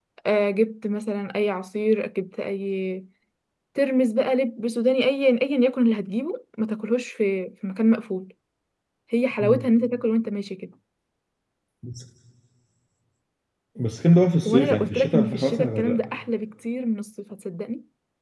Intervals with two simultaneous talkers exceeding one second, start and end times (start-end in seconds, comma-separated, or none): 14.5-16.0